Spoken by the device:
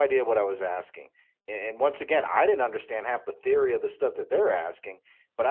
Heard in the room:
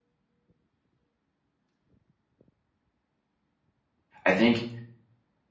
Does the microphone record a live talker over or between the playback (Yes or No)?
Yes